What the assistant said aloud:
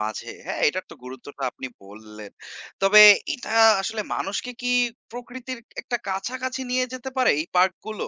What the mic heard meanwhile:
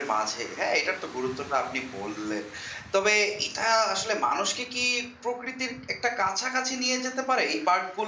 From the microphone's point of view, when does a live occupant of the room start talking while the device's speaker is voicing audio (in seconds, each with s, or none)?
none